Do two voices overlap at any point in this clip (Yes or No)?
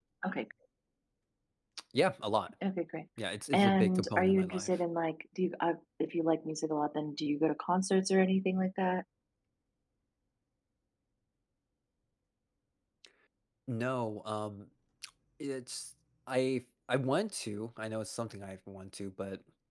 Yes